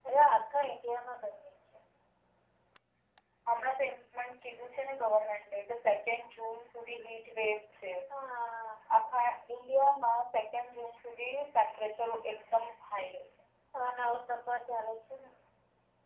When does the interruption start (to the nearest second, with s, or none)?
none